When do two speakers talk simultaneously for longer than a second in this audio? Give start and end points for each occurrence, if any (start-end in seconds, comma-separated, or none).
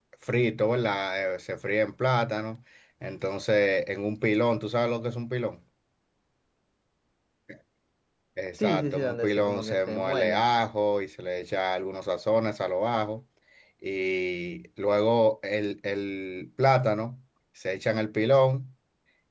8.6-10.5